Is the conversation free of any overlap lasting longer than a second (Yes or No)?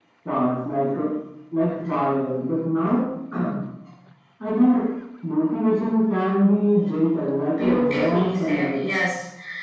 No